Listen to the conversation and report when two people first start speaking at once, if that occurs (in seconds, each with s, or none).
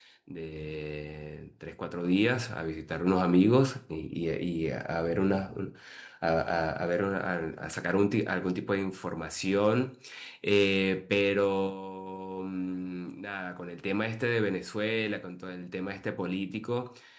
none